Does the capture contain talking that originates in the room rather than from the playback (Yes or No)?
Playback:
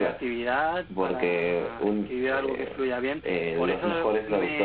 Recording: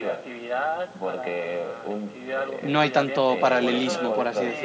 Yes